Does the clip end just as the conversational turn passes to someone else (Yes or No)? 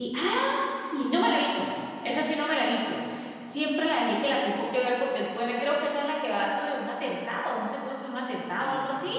Yes